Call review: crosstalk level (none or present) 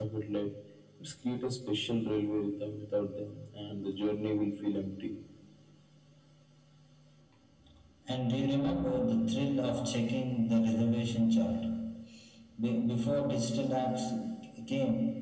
none